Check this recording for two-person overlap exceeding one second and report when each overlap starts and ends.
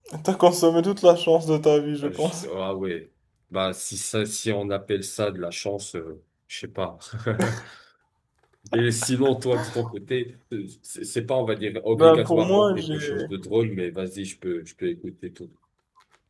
11.9-13.2

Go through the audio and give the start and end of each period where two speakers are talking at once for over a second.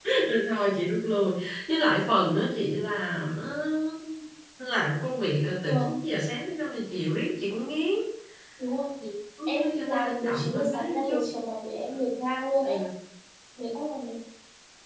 9.5-11.2

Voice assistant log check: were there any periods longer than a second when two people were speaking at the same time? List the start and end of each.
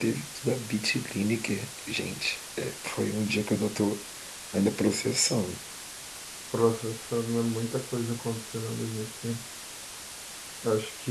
none

